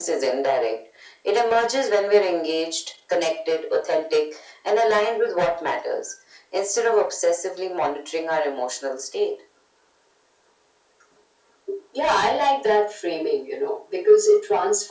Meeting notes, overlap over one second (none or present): none